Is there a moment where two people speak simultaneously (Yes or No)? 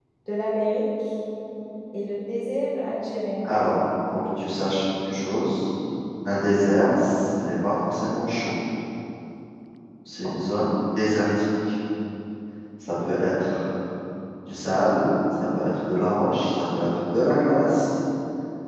No